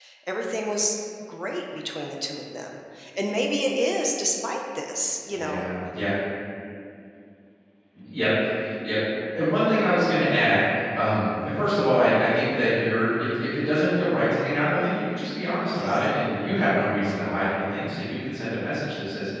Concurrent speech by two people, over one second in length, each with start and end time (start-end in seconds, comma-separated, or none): none